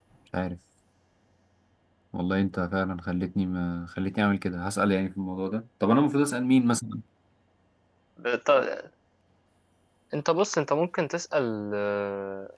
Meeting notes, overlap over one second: none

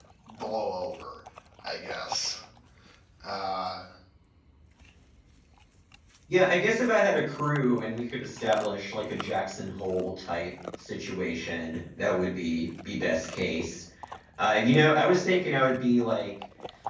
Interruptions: none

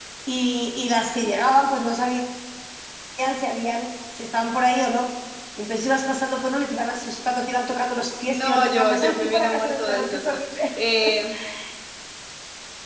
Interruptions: present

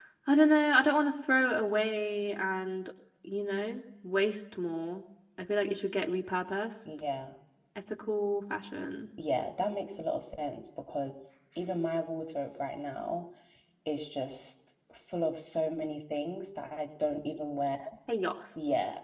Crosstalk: none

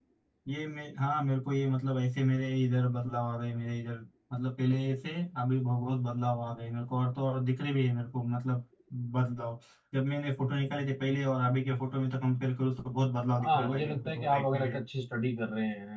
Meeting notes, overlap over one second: present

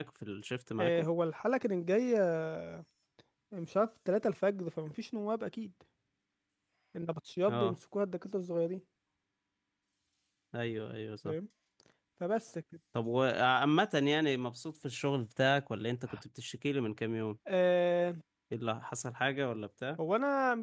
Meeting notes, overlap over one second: none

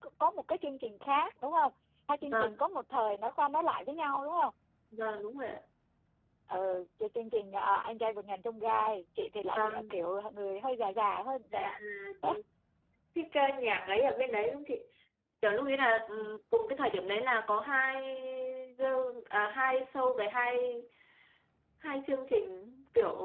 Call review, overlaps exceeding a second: none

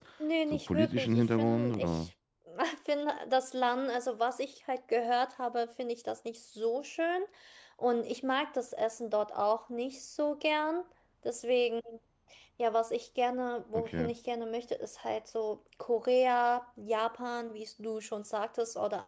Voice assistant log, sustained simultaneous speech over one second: present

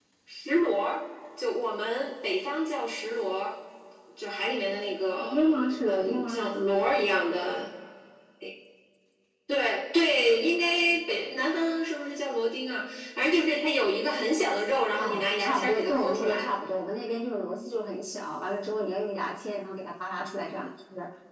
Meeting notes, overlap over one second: present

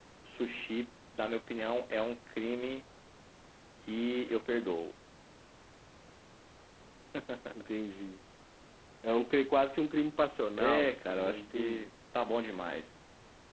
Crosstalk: present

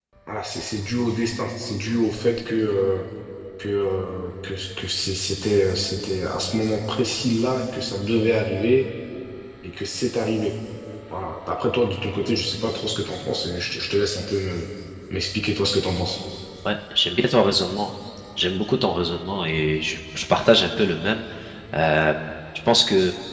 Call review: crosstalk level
none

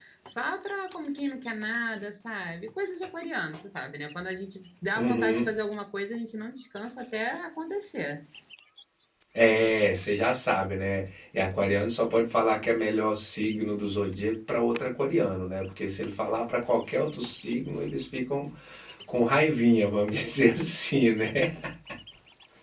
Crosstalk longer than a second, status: none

